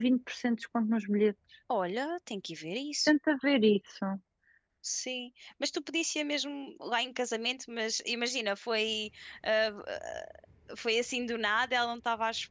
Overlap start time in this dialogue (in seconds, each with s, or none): none